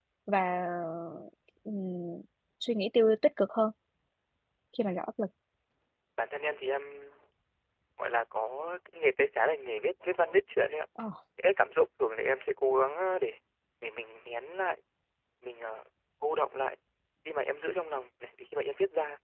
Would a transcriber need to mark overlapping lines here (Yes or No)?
No